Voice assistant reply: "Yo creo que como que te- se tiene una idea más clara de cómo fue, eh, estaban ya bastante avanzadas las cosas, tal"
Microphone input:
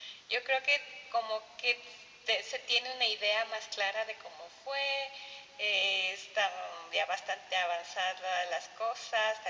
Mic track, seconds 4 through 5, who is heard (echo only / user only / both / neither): echo only